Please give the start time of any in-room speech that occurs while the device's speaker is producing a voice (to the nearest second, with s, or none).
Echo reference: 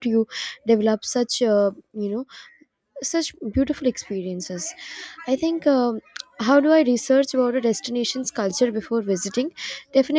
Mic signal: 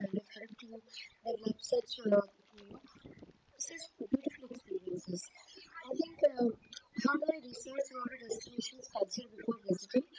none